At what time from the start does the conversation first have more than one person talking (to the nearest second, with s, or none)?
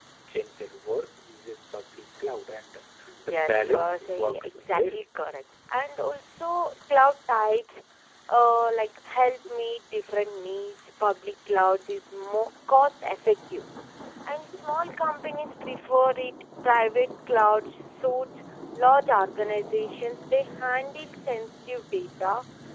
3 s